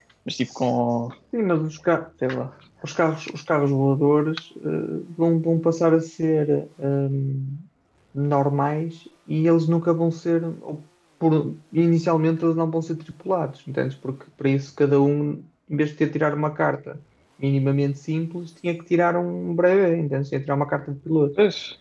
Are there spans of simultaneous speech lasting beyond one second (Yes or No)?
No